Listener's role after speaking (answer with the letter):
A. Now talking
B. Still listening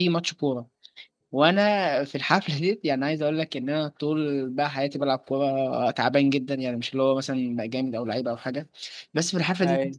B